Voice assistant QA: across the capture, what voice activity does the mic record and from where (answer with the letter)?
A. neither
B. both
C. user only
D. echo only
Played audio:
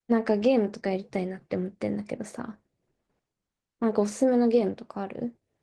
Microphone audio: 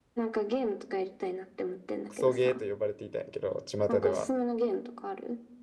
B